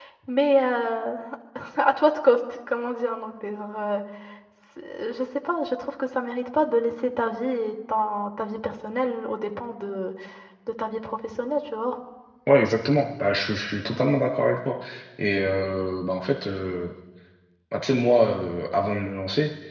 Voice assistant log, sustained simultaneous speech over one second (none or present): none